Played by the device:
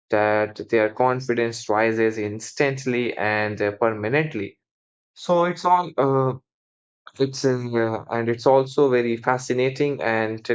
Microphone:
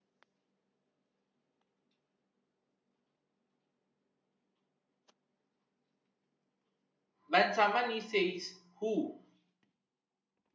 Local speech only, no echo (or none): When someone he says who,